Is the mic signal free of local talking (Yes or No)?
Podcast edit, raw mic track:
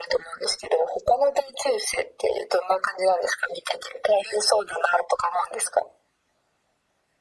Yes